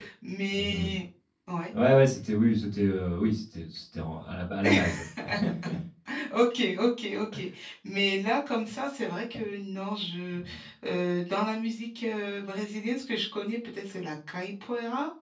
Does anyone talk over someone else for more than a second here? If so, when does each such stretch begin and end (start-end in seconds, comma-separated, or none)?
none